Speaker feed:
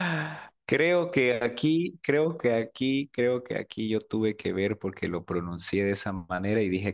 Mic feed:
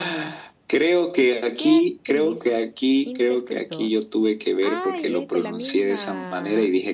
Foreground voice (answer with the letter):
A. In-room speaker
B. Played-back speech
B